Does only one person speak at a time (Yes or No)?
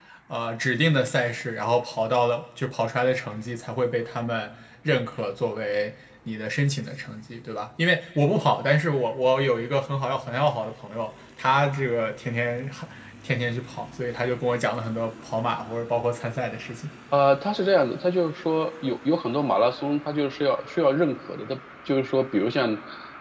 Yes